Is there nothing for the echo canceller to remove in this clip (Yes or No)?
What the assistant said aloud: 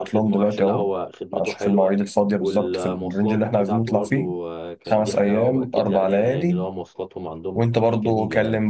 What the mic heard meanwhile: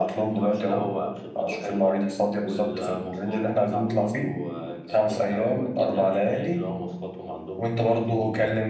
No